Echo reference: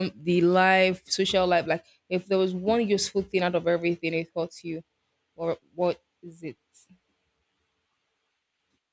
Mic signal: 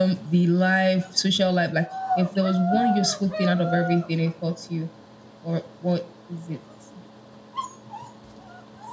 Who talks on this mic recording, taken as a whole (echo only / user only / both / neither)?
echo only